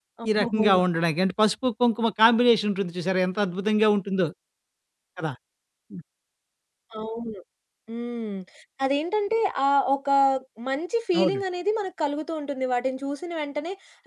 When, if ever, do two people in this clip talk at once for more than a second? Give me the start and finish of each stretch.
none

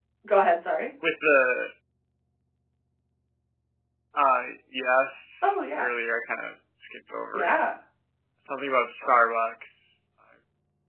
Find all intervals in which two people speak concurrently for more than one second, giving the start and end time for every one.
none

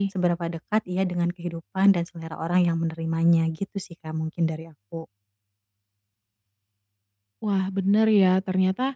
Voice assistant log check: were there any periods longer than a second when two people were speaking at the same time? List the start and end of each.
none

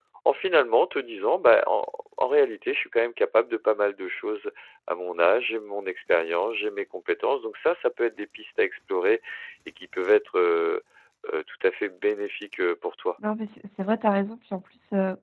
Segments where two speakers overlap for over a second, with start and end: none

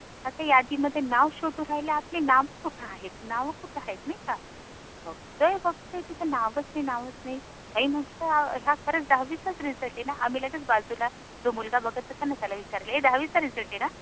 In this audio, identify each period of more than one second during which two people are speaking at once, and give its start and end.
none

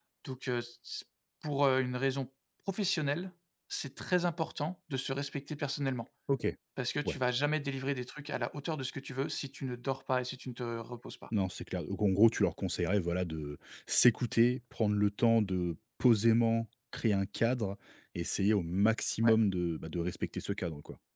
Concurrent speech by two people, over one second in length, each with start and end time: none

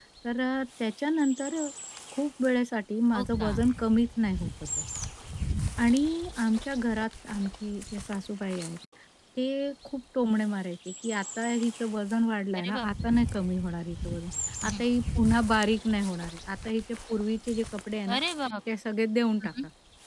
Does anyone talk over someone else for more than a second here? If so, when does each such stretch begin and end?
none

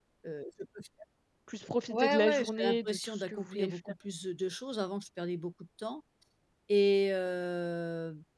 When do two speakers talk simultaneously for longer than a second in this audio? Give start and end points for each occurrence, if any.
1.9-3.8

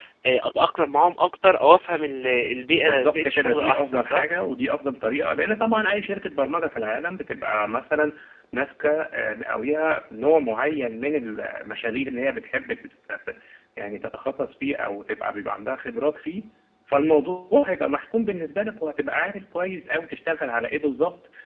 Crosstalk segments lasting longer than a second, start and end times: 2.8-4.2

